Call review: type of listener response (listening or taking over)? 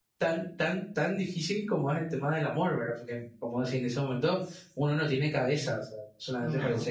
listening